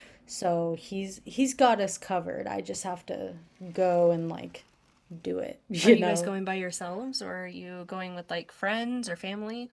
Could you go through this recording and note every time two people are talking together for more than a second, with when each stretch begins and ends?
none

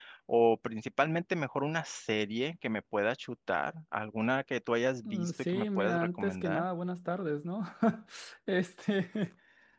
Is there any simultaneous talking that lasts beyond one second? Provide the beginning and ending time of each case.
5.0-6.6

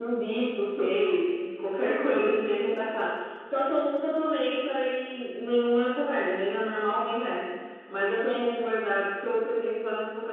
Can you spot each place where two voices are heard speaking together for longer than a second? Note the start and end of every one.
none

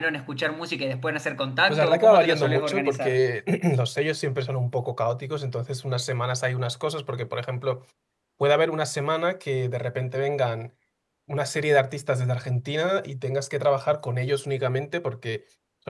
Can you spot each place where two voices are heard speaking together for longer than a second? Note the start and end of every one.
1.7-3.3

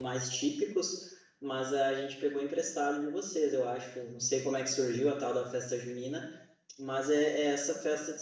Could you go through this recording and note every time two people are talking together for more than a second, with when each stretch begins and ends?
none

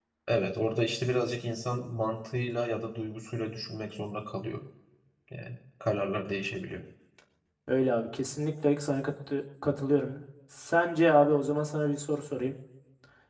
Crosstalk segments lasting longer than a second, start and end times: none

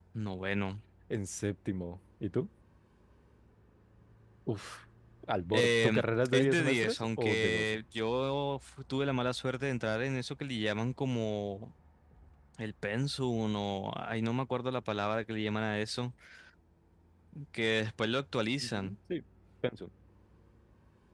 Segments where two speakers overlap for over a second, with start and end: 5.5-7.8

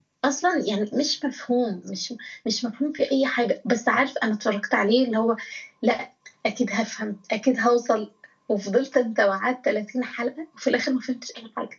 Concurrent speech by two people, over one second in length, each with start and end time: none

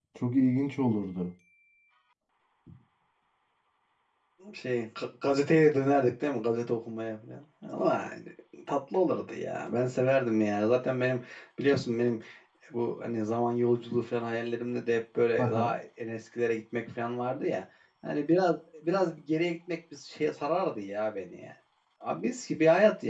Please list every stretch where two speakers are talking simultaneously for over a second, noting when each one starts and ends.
none

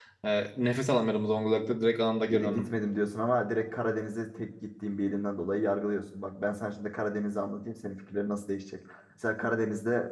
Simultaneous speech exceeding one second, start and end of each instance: none

